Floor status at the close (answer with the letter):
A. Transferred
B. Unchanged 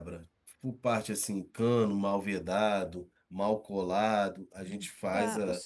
A